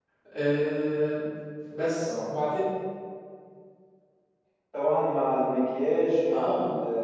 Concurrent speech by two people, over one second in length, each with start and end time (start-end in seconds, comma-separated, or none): none